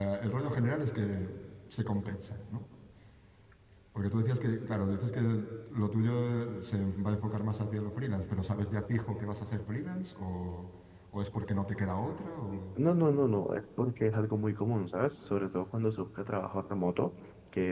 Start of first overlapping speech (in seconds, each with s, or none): none